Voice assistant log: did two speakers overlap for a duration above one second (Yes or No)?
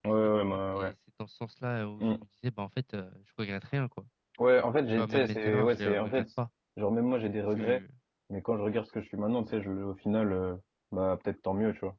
Yes